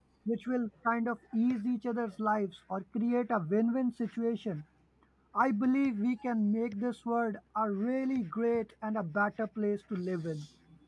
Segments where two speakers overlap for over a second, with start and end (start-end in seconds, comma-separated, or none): none